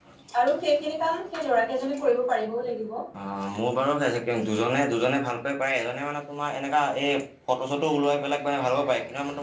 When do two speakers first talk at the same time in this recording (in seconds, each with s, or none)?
none